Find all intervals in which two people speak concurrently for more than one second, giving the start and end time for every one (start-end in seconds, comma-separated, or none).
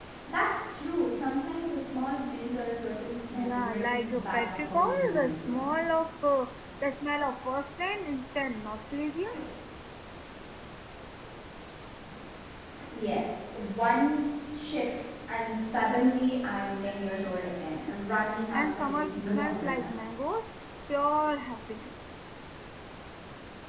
3.4-5.7, 18.5-19.9